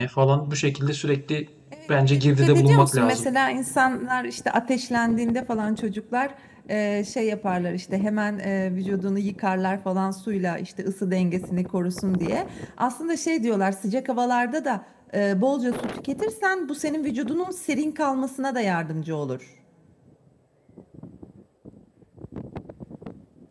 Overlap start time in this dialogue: 2 s

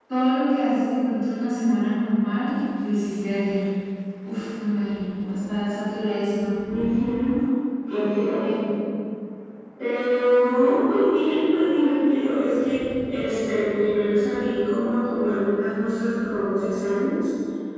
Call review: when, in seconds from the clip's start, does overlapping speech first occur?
none

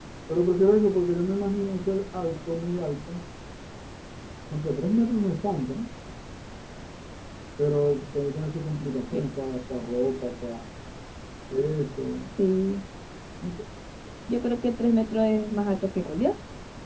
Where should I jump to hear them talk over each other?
none

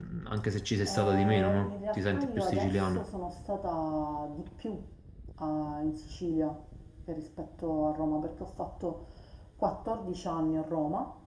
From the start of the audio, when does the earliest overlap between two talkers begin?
1 s

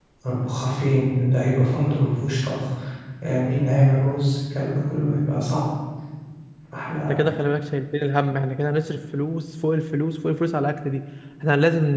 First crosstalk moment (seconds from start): none

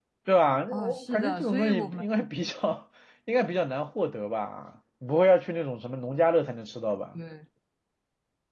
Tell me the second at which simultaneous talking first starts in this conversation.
1 s

